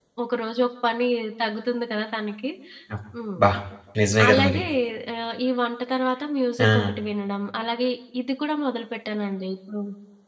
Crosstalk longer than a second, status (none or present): none